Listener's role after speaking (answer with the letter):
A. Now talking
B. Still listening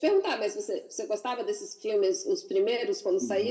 A